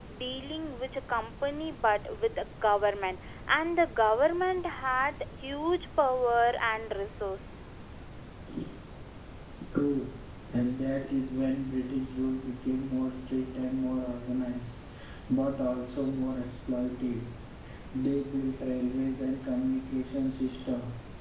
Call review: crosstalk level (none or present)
none